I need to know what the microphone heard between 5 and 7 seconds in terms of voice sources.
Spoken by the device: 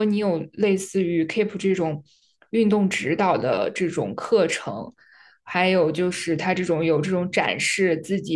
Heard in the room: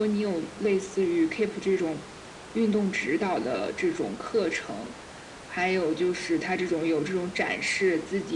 echo only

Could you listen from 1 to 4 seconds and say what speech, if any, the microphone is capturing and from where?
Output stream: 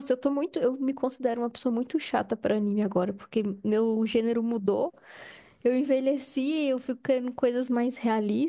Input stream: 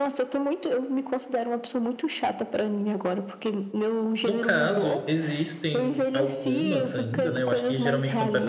echo only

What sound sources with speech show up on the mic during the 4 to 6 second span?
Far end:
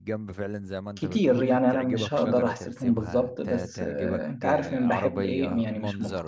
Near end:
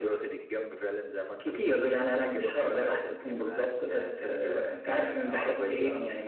echo only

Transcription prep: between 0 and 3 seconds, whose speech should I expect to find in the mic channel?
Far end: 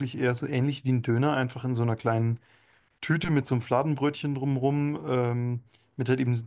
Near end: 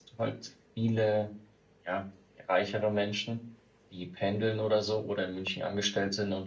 user only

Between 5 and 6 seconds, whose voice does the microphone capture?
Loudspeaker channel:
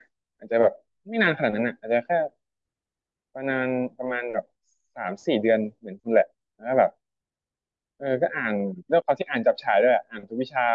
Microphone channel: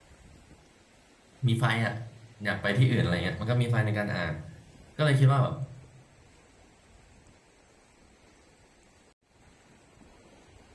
user only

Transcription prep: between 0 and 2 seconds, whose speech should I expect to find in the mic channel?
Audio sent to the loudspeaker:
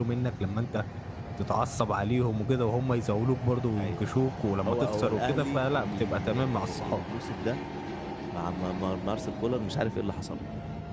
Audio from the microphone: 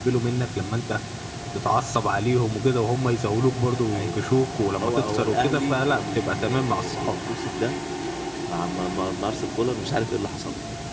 echo only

